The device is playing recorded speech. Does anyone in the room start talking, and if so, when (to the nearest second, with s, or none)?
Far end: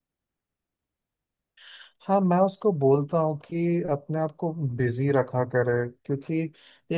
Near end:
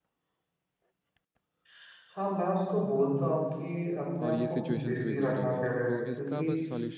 4 s